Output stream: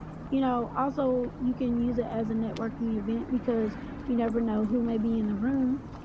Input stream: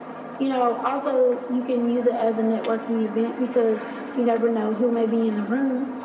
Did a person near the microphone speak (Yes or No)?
No